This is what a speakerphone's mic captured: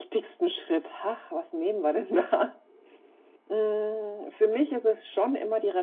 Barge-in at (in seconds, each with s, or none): none